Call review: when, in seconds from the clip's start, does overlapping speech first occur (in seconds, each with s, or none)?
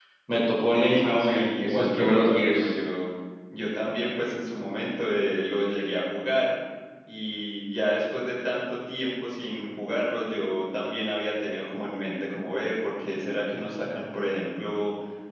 0.7 s